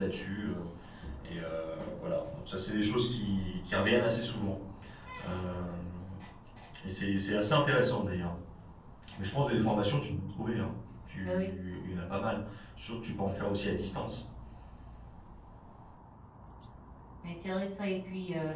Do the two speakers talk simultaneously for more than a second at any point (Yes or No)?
No